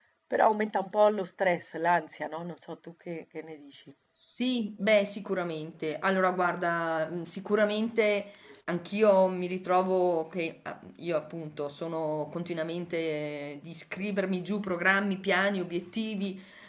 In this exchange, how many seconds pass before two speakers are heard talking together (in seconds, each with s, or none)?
none